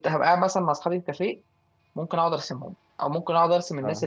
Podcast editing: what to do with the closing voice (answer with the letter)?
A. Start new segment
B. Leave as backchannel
B